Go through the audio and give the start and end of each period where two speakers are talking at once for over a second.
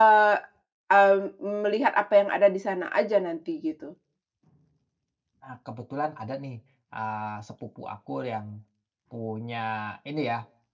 none

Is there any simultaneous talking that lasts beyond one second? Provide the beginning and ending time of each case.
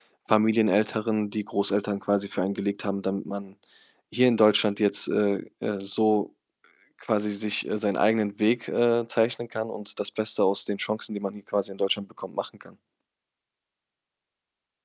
none

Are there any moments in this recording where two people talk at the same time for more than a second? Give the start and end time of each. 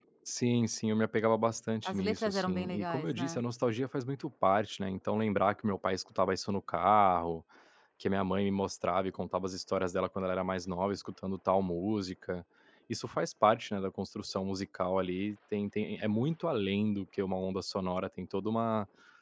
1.9-3.4

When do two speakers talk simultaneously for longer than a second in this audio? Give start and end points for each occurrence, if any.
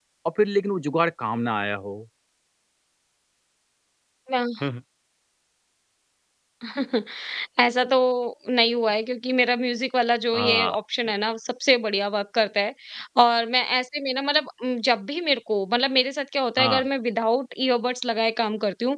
none

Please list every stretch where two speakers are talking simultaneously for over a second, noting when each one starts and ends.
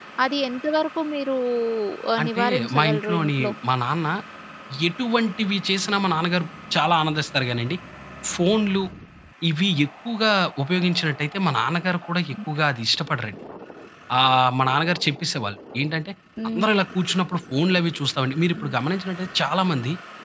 2.2-3.5

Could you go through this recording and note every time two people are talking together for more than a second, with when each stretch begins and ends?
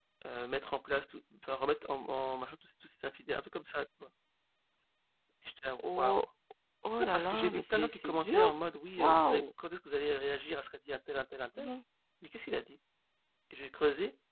7.0-8.4

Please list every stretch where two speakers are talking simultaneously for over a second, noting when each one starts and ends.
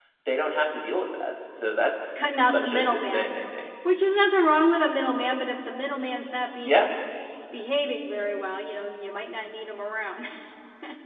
2.2-3.4

